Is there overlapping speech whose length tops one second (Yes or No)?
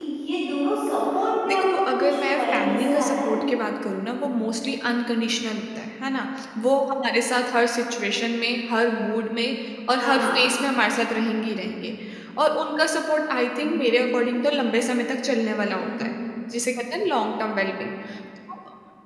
Yes